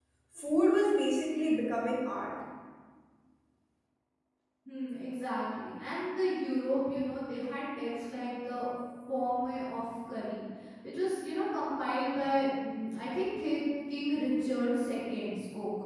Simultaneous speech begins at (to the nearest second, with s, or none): none